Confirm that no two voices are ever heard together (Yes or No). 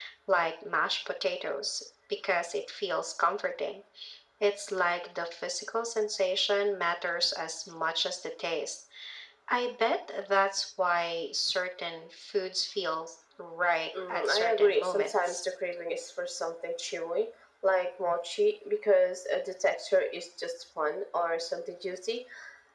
No